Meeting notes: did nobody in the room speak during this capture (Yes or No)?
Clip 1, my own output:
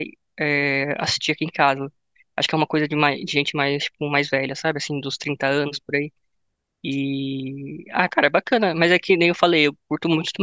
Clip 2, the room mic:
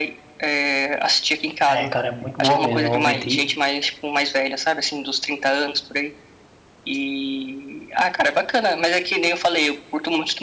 No